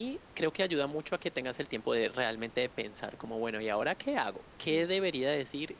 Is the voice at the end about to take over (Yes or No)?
No